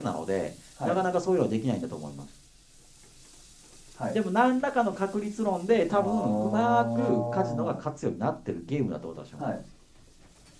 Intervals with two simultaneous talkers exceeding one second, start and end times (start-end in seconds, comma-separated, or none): 5.9-7.8